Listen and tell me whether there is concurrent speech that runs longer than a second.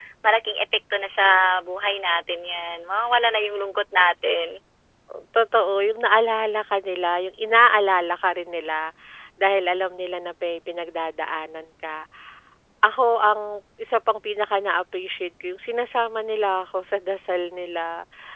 No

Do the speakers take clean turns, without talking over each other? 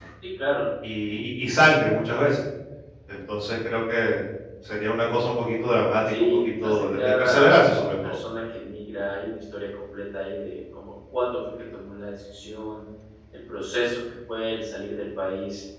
No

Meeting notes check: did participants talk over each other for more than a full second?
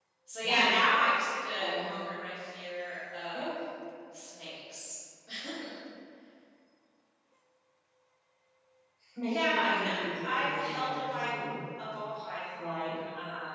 Yes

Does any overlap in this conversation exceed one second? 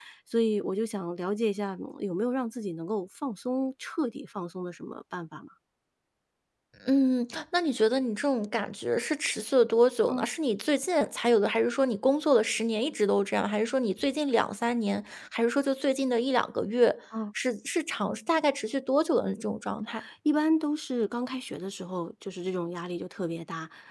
No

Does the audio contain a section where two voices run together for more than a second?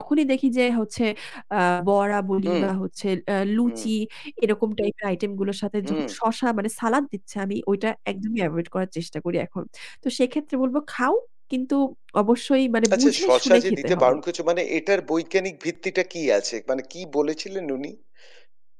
Yes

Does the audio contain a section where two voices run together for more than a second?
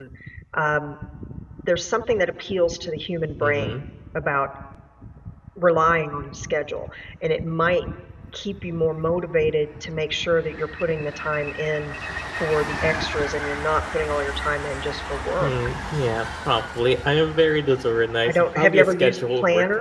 Yes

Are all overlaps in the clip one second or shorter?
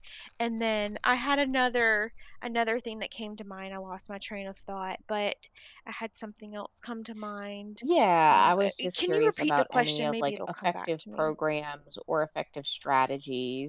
No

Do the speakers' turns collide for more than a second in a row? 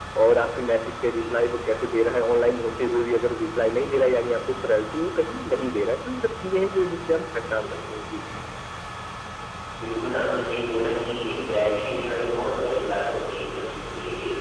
No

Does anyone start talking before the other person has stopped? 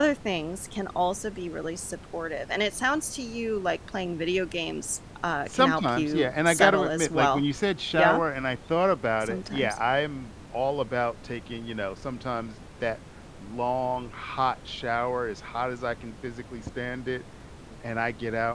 Yes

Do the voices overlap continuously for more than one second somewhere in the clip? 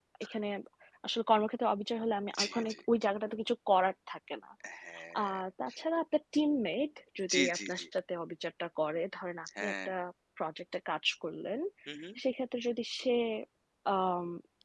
No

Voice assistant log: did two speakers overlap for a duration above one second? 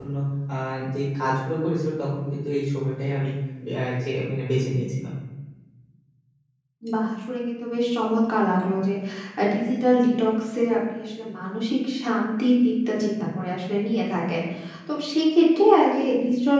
No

